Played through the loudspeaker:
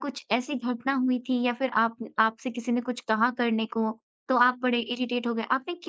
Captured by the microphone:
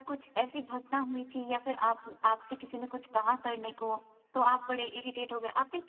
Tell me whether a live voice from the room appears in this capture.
No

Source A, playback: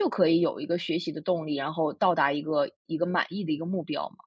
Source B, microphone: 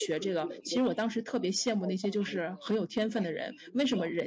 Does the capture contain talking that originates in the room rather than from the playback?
Yes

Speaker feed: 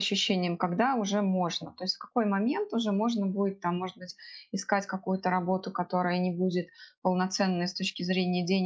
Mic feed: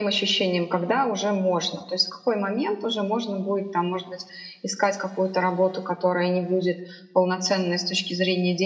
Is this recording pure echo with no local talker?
Yes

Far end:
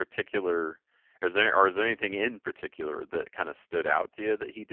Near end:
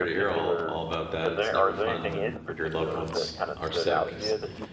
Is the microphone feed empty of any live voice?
No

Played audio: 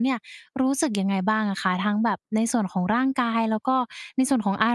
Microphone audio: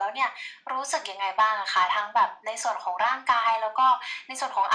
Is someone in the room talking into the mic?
No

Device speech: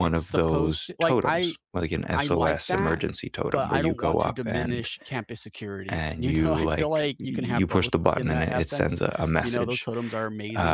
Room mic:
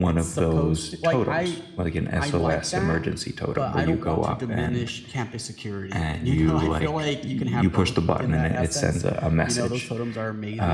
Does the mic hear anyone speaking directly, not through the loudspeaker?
No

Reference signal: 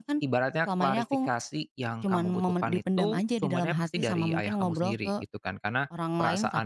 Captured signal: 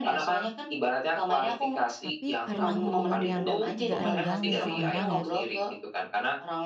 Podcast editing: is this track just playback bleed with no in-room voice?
No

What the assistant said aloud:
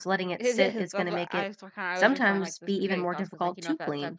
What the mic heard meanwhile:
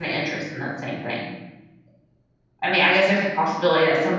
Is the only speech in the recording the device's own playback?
No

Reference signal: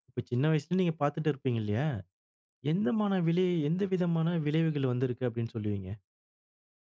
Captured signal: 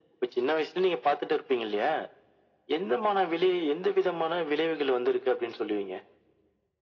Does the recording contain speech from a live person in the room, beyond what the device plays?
No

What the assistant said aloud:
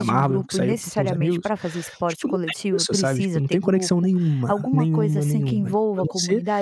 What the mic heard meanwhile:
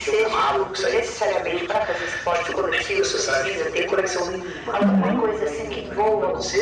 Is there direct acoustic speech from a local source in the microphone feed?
Yes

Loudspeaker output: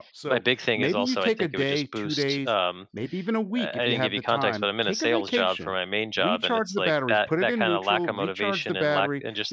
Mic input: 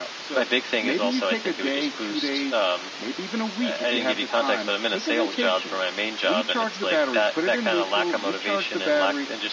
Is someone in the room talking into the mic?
No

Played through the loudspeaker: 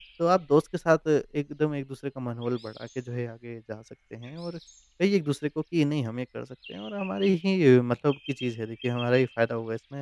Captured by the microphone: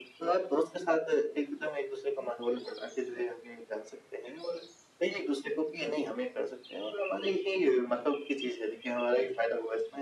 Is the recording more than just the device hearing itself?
No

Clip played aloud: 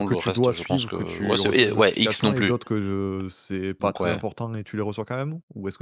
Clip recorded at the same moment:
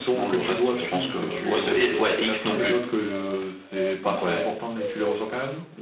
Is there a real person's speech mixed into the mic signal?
No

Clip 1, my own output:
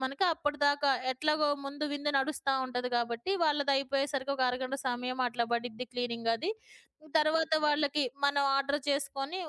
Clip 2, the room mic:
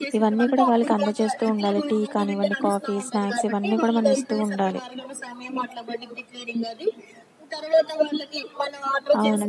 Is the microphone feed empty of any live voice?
No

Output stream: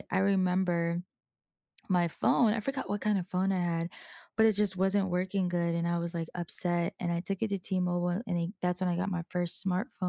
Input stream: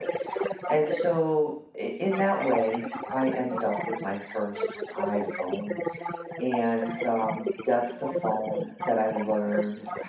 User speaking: Yes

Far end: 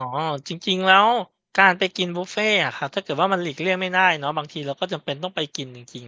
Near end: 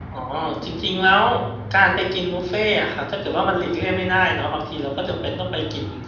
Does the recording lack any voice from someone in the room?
Yes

